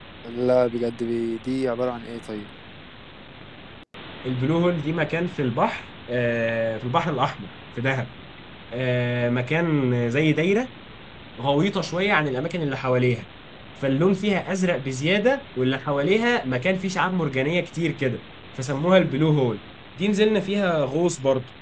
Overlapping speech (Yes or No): No